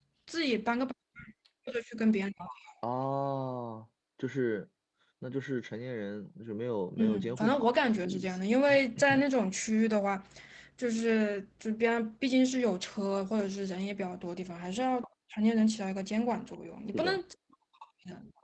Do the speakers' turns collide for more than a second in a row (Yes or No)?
Yes